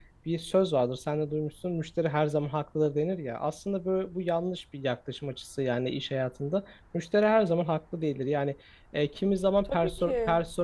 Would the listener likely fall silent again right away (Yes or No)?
Yes